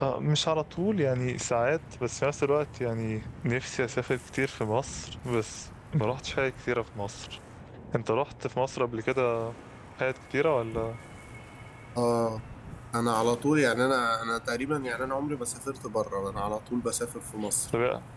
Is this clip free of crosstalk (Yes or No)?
Yes